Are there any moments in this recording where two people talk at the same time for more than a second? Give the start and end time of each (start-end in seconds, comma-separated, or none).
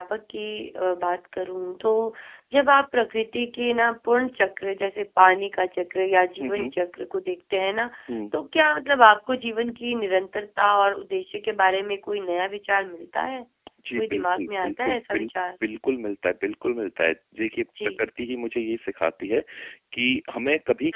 14.0-15.3